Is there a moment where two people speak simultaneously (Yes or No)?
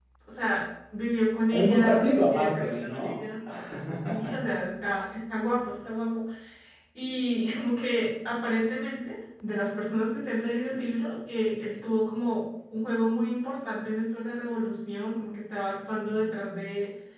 Yes